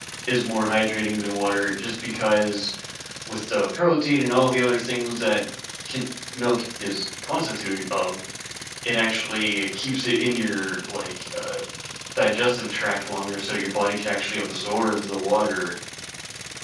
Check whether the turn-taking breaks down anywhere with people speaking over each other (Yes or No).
No